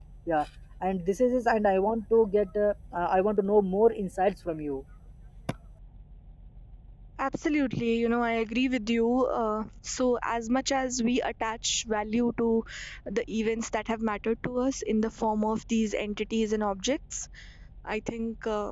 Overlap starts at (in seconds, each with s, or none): none